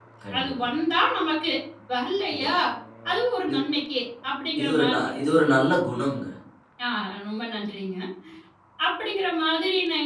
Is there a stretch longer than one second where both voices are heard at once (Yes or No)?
No